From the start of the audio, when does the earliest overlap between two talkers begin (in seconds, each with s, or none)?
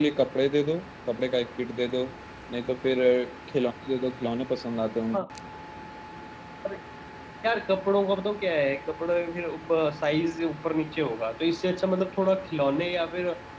none